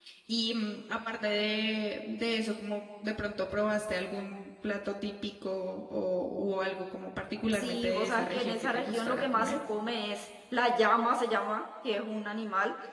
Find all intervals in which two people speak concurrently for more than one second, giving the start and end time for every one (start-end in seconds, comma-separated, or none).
7.5-9.6